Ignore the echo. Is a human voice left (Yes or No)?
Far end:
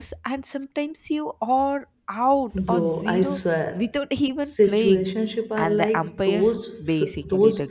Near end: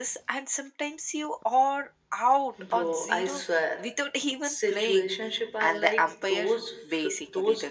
No